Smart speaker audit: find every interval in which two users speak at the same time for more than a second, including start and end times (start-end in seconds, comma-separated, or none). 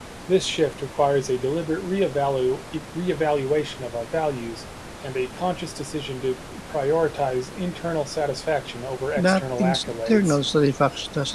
9.2-10.4